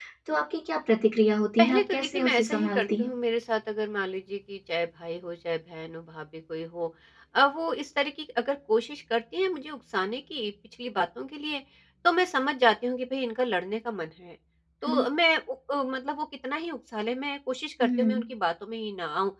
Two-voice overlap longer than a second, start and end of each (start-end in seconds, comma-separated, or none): 1.6-3.1